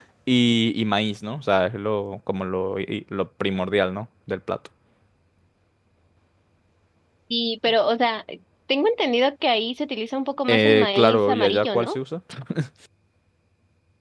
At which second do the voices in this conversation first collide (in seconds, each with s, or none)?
10.5 s